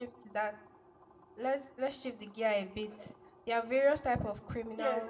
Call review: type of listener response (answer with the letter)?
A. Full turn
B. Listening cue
A